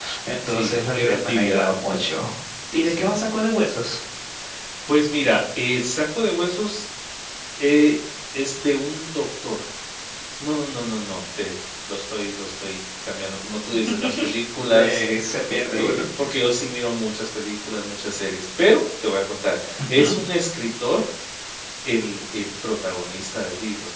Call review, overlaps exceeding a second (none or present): present